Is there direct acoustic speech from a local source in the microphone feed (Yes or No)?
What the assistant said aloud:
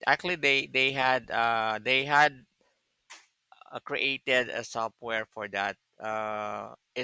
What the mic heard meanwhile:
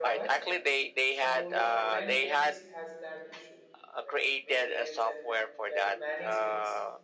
Yes